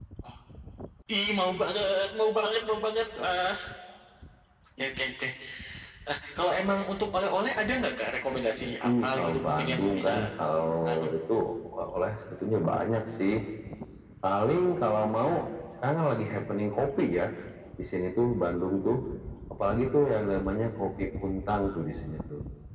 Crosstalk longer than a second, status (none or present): present